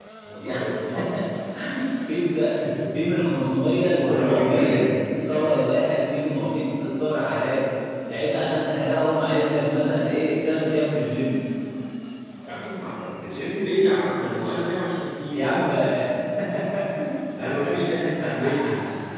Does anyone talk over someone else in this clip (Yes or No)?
Yes